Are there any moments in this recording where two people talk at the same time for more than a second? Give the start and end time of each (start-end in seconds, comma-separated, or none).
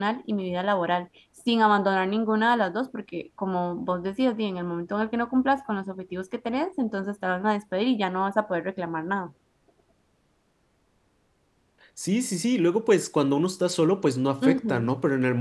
none